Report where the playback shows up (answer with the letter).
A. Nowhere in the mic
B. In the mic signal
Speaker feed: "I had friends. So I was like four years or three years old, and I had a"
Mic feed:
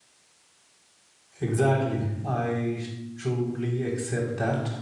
A